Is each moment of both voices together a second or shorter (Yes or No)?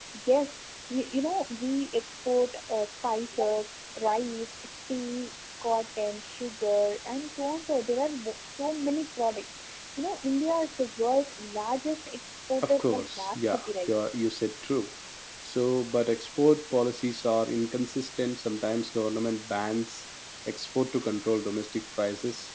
No